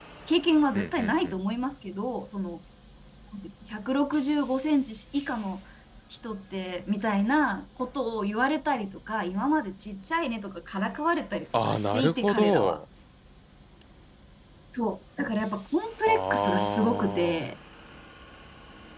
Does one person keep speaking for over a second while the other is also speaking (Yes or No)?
Yes